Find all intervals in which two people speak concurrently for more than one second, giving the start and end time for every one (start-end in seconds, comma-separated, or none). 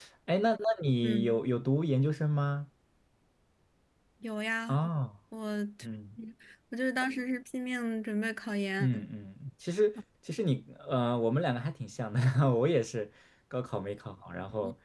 none